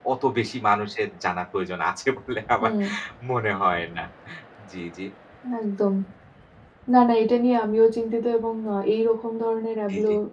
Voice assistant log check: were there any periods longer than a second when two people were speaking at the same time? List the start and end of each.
none

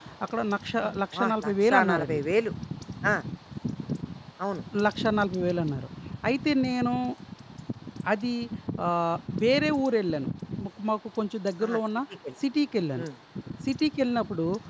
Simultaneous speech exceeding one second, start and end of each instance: 0.8-2.2

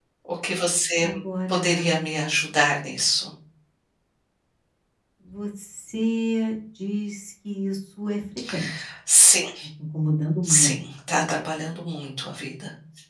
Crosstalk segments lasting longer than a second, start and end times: none

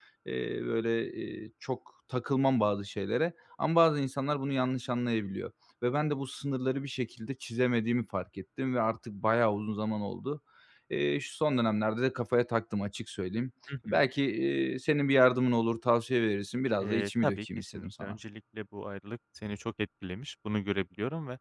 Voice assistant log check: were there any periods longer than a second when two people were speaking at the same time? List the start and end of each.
16.8-18.2

